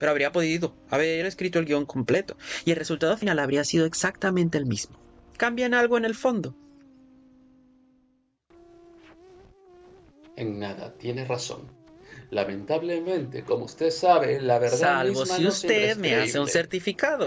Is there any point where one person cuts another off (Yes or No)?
Yes